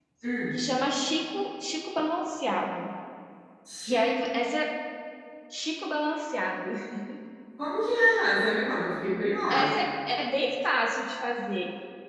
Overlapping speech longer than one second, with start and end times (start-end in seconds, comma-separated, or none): none